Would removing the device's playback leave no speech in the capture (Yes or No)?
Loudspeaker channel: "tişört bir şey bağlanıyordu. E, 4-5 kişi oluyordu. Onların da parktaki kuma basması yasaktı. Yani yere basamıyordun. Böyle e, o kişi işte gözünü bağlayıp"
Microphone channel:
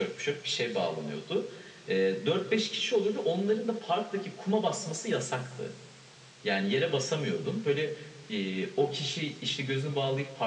Yes